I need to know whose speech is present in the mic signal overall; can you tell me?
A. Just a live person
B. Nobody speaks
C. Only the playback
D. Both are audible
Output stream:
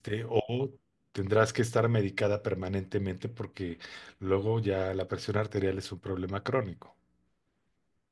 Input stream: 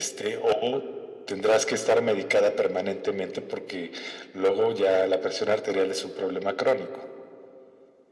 C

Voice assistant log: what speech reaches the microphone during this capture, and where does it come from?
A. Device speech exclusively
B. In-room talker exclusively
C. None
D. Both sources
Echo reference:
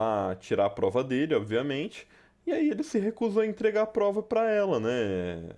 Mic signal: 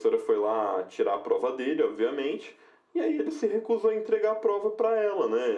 A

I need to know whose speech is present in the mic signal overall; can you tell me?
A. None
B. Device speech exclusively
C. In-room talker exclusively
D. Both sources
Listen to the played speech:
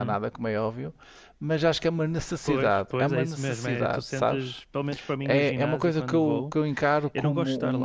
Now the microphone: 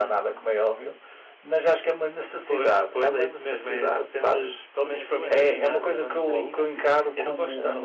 D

